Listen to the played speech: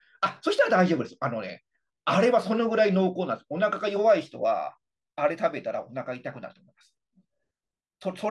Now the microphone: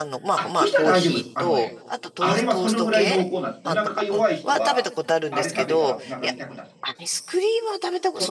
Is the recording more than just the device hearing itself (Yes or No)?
Yes